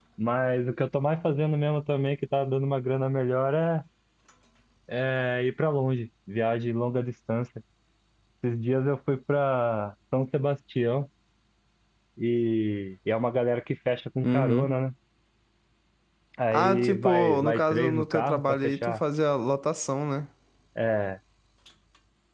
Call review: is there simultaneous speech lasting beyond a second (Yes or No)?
Yes